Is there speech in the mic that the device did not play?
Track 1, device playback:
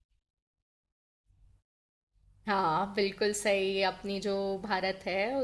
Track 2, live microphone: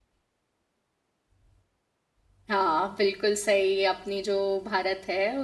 No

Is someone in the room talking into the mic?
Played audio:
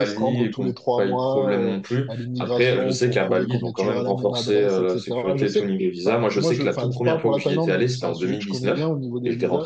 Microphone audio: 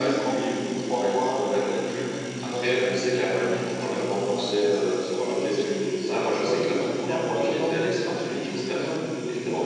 No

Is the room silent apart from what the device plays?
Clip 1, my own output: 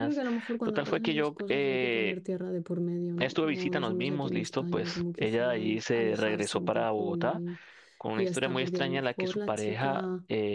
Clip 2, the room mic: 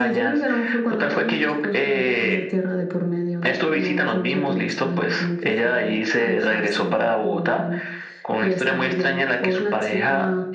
Yes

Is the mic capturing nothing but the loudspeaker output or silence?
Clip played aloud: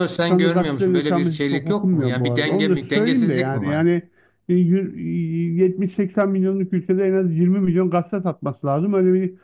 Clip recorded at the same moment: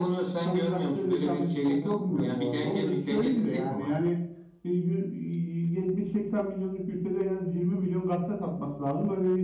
Yes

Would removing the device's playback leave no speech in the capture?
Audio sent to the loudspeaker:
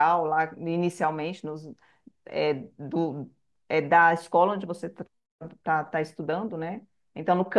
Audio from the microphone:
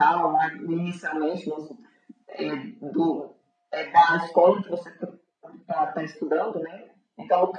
Yes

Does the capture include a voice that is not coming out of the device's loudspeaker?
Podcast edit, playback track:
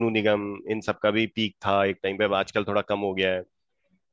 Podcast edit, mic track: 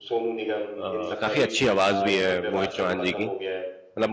Yes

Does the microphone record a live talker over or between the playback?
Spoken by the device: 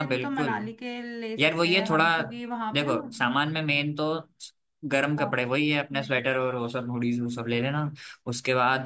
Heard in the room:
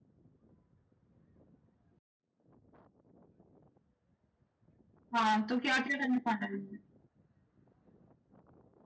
Yes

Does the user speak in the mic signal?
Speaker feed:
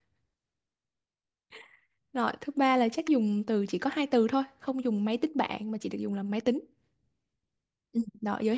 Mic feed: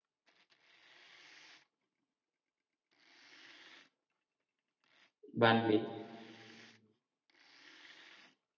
Yes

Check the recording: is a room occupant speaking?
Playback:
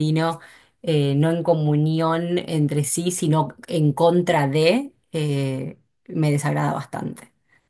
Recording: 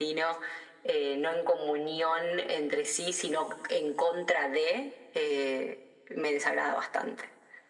No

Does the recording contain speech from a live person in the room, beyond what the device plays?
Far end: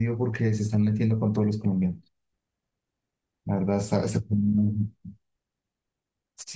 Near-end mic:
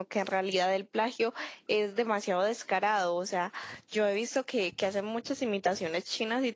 Yes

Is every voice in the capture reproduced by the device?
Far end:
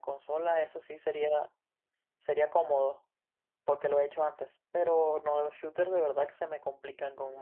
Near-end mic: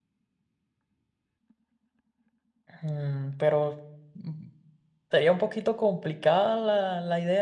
No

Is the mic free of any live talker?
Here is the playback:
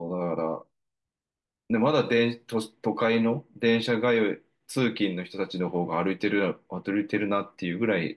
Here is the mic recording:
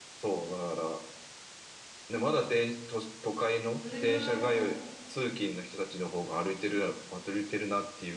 No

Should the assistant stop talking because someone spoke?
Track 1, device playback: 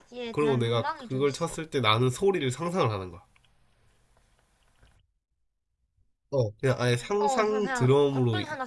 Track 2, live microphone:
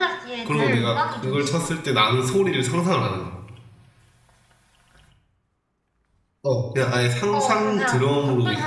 Yes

